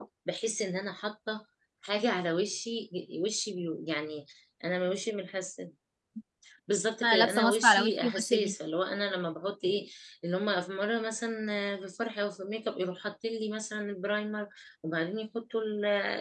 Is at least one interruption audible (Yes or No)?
Yes